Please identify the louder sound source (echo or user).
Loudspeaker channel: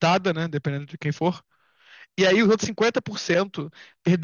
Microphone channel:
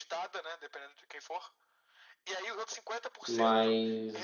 user